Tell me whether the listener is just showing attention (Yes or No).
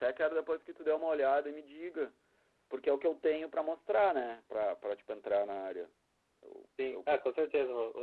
No